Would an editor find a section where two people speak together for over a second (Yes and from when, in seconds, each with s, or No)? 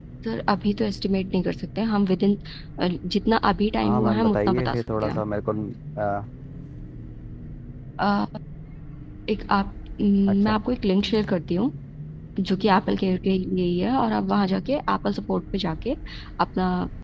Yes, from 3.8 s